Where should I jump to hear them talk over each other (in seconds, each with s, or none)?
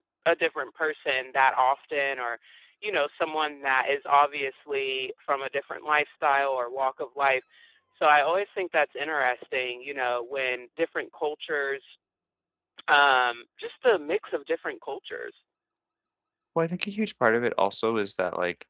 none